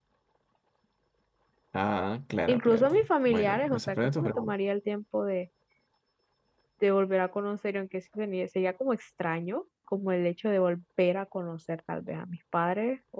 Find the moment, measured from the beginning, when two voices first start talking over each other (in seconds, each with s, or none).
2.5 s